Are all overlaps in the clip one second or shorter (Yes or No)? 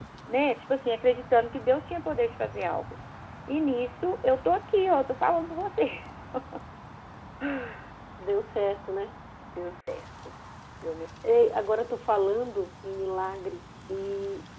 Yes